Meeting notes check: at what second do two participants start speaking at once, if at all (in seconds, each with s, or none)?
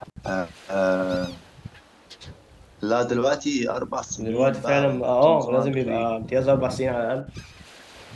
4.2 s